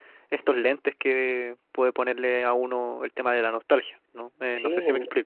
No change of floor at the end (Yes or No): No